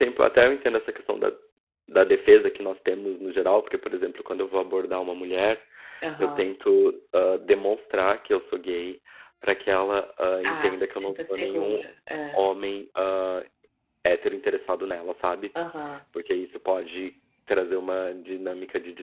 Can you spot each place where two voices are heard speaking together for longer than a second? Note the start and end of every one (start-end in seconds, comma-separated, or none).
10.5-11.8